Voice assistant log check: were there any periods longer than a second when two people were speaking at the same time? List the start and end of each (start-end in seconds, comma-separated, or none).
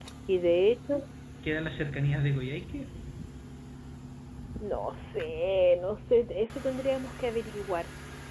none